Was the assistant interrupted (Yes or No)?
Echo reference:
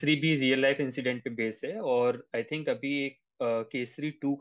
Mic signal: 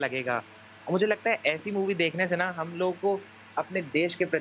Yes